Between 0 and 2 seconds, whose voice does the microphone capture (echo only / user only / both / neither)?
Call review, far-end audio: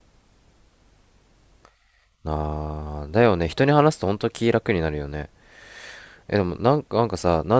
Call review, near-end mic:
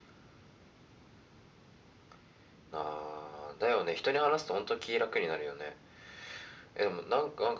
neither